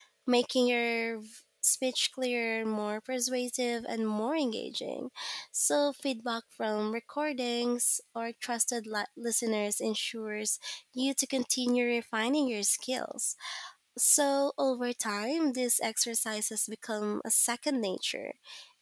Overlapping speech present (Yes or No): No